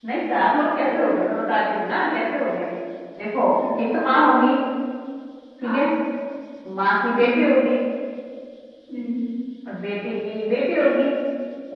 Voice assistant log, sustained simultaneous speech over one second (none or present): none